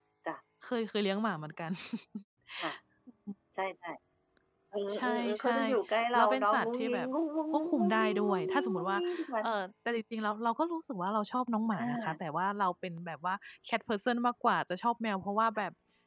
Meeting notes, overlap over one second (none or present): present